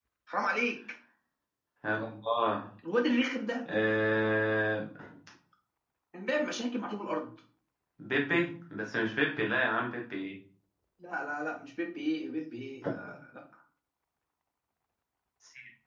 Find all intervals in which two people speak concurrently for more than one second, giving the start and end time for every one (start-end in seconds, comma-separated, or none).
none